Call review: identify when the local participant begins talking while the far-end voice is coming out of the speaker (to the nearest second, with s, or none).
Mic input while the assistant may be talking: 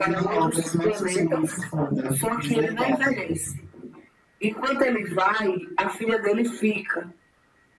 none